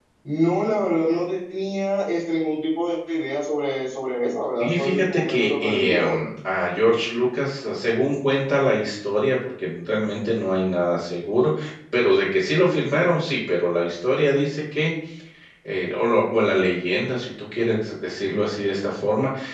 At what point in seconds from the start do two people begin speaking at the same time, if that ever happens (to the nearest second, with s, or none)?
5 s